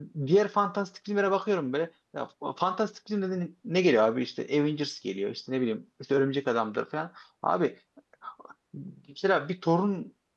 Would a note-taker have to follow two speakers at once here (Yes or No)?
No